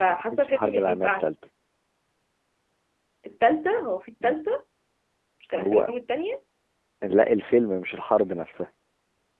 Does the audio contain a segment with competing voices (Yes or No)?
Yes